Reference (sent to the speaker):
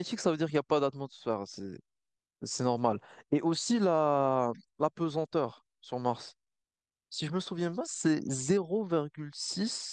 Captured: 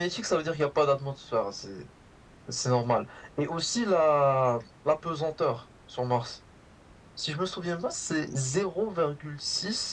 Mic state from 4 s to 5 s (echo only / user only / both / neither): echo only